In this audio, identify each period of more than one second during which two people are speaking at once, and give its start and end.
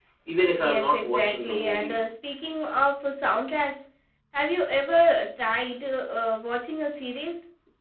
0.6-2.0

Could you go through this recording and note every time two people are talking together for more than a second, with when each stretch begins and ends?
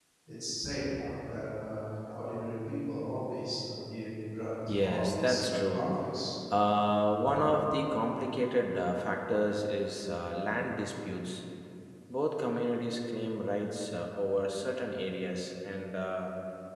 4.7-5.9

